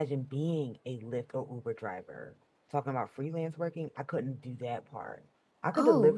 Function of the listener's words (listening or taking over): listening